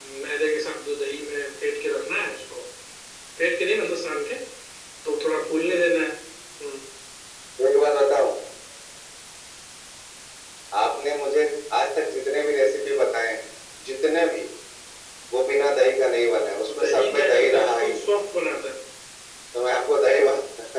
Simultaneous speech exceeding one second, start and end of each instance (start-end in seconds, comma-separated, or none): 16.4-18.0